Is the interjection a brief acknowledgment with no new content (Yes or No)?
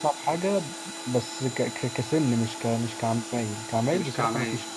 Yes